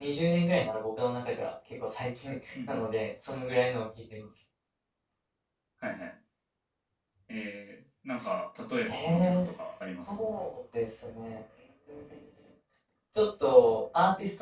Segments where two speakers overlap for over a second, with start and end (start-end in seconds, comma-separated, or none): 8.9-10.2